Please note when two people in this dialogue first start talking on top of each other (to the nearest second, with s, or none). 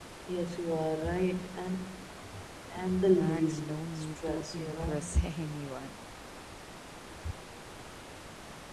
3 s